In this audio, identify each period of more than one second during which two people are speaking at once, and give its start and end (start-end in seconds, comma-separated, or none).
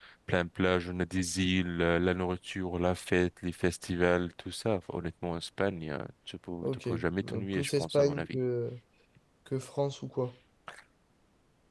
6.6-8.4